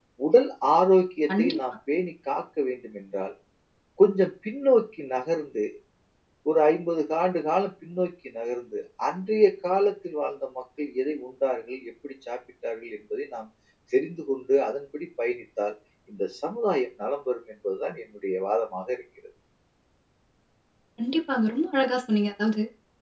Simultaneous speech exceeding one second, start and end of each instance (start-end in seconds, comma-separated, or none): none